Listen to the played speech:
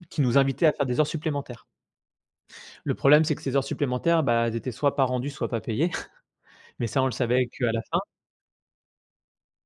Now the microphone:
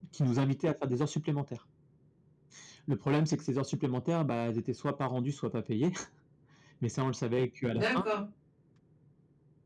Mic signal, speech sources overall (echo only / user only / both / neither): both